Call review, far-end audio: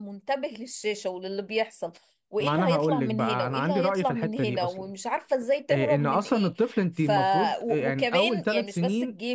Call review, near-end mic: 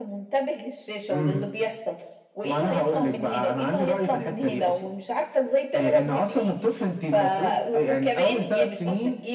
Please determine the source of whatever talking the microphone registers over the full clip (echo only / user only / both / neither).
both